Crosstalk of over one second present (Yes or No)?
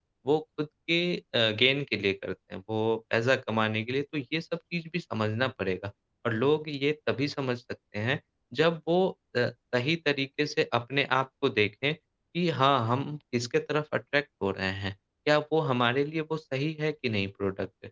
No